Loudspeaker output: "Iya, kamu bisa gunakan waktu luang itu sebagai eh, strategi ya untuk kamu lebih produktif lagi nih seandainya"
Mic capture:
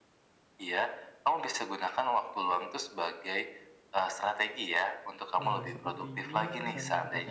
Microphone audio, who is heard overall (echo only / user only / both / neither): both